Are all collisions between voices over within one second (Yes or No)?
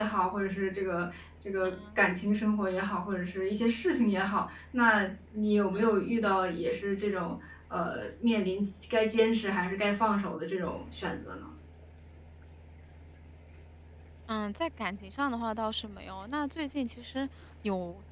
Yes